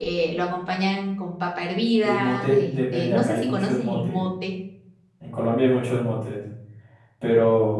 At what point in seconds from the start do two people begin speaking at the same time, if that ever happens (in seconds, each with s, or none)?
2.0 s